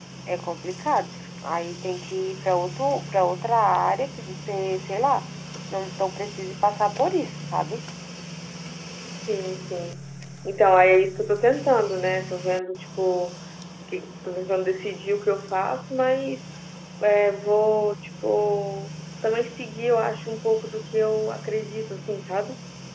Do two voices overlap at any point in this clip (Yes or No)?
No